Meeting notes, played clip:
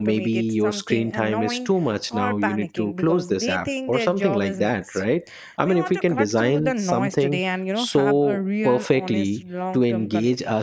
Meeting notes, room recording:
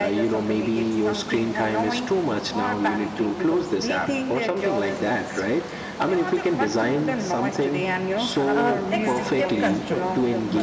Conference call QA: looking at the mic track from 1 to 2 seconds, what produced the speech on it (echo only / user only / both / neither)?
echo only